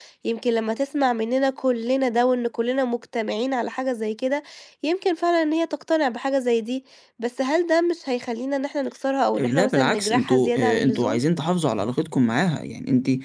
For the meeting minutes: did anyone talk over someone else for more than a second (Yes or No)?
Yes